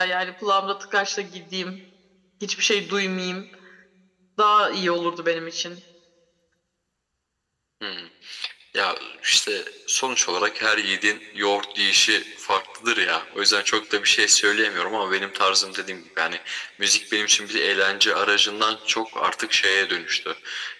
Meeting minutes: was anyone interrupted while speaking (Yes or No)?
No